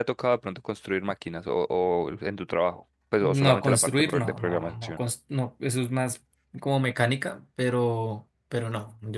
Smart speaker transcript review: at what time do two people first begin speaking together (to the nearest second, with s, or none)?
3 s